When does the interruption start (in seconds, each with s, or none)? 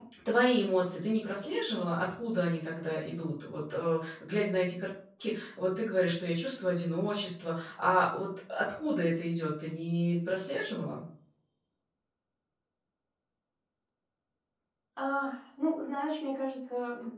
none